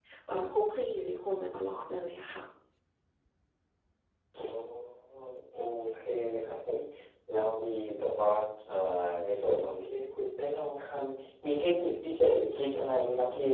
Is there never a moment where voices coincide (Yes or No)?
Yes